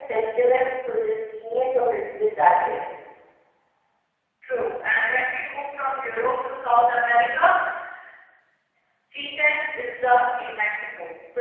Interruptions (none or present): none